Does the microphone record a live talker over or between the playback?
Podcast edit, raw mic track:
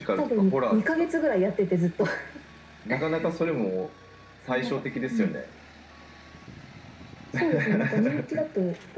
No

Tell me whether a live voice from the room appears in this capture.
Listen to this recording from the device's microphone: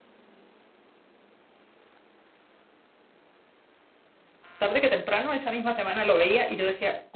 Yes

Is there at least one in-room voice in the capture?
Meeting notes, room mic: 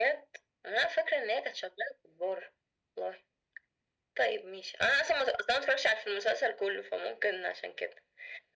No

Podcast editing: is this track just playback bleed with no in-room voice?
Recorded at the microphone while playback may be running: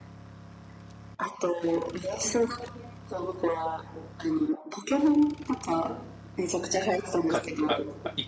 No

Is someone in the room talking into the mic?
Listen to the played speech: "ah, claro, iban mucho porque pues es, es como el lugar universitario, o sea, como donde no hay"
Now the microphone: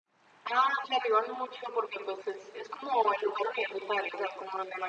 No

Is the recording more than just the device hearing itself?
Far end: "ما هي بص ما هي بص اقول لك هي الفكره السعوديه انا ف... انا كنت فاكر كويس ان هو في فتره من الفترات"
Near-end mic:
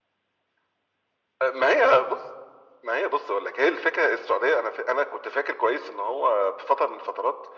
No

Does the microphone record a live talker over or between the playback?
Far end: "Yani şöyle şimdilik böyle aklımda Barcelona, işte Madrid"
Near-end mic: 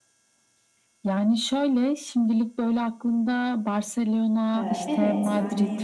Yes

